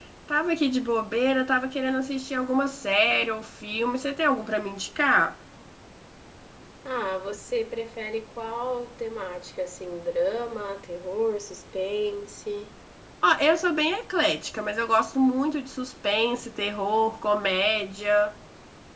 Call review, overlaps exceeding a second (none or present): none